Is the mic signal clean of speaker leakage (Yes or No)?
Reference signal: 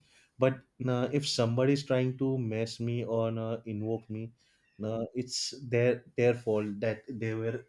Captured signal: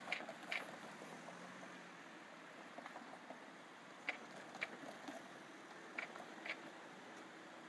Yes